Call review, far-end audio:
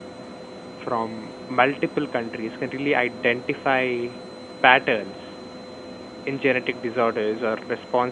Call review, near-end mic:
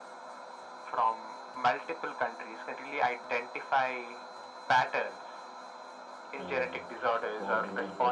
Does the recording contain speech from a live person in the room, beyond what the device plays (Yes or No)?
Yes